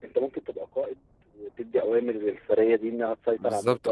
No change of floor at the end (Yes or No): No